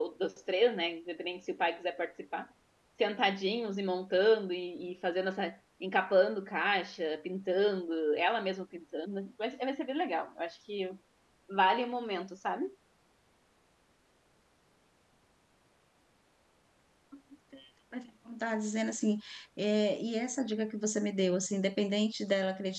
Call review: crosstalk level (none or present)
none